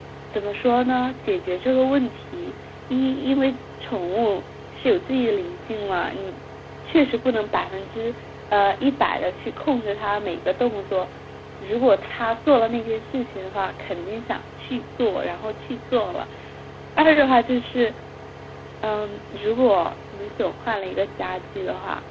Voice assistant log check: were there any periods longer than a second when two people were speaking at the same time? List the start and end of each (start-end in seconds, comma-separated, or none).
none